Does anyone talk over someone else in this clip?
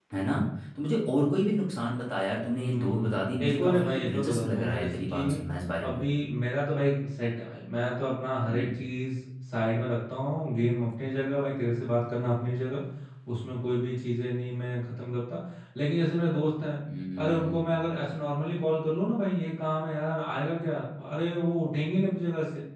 Yes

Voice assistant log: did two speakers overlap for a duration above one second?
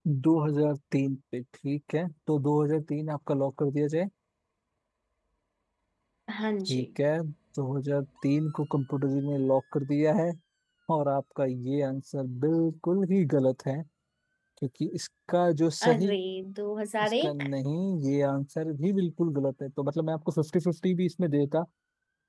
No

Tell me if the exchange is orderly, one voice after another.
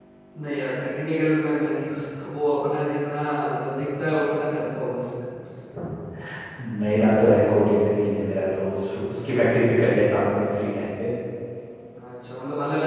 Yes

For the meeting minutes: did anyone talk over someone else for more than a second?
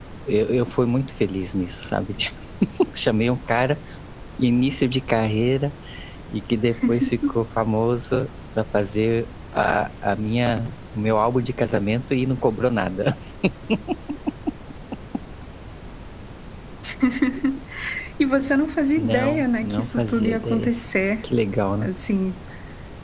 Yes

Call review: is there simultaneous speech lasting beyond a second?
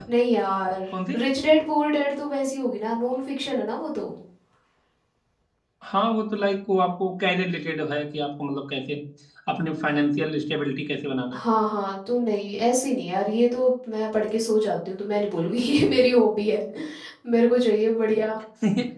No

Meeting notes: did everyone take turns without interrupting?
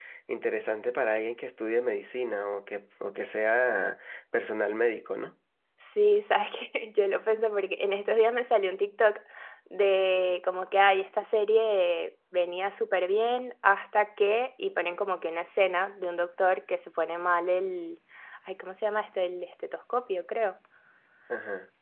Yes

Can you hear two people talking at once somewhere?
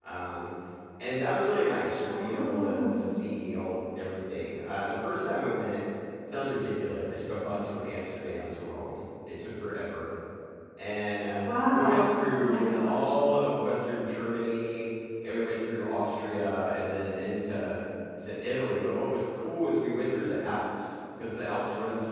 Yes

